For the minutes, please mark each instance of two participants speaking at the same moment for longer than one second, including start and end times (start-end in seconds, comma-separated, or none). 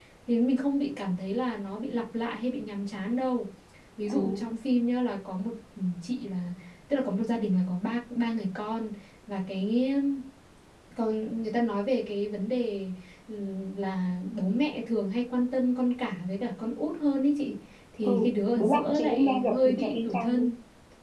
18.6-20.5